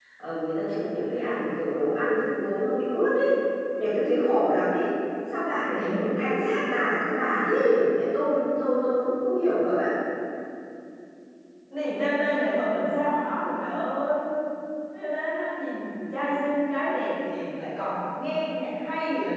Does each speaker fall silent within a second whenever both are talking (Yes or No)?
Yes